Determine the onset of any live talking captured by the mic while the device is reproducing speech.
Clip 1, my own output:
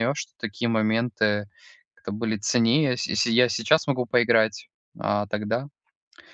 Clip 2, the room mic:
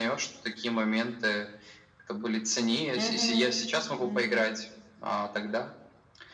3.0 s

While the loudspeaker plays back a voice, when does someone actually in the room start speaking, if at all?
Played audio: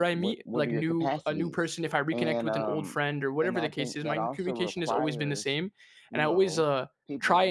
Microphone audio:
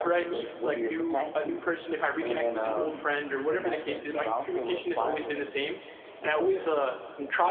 none

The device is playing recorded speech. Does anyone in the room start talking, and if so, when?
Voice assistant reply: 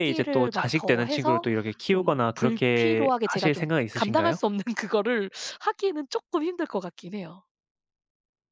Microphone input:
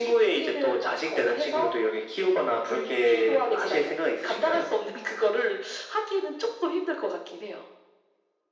none

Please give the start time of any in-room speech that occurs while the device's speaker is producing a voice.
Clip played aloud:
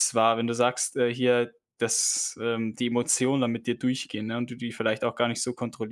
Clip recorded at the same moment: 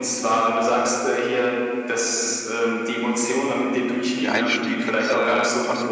4.2 s

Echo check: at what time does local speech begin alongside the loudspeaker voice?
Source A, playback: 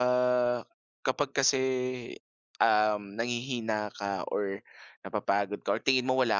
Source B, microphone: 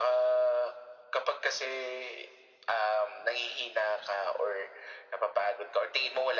none

